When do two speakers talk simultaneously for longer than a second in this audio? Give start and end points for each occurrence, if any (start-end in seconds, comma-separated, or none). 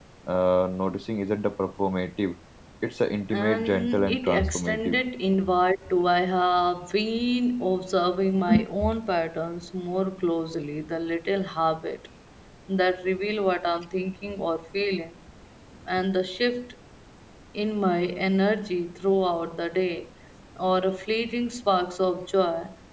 3.3-5.0